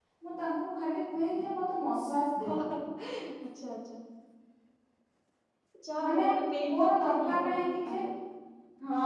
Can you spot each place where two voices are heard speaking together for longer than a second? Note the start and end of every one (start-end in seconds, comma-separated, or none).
6.7-8.0